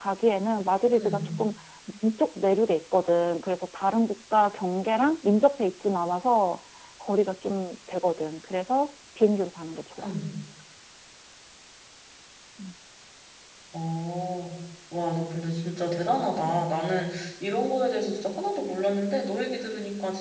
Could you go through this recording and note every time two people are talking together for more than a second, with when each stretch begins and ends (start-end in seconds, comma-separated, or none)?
none